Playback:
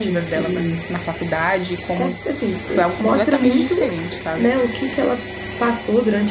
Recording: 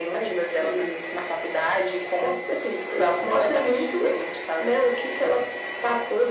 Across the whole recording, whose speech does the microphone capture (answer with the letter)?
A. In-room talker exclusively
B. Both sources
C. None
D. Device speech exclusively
D